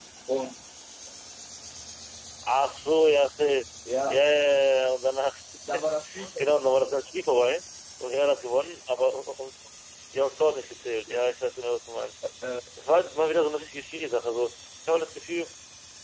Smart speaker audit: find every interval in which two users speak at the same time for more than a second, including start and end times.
none

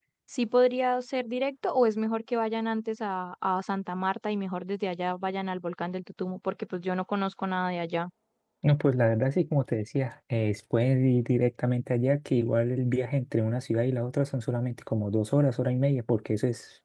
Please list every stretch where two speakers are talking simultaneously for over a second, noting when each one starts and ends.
none

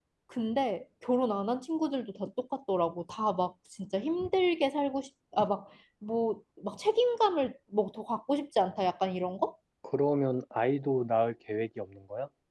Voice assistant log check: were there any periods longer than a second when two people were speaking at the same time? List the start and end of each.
none

